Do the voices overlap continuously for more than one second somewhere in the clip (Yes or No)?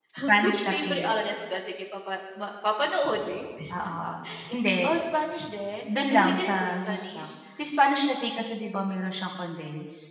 Yes